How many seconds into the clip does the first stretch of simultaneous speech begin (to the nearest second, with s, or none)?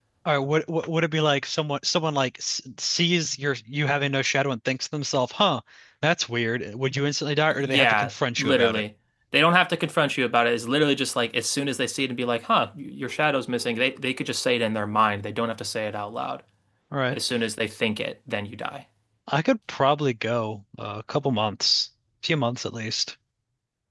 8 s